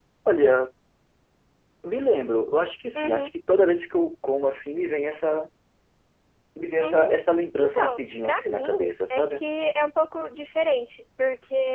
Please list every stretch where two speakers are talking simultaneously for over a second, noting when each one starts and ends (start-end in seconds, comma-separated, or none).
7.5-9.4